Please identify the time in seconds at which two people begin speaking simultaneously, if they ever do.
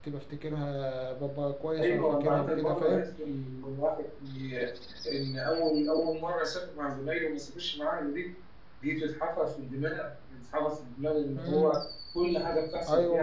1.8 s

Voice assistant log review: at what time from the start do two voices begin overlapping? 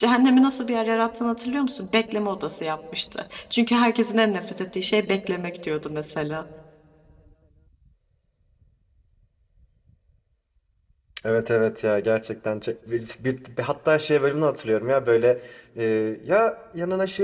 none

